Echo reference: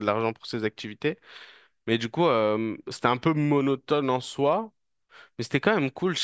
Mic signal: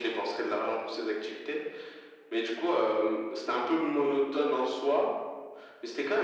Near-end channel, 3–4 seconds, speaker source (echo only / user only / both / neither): echo only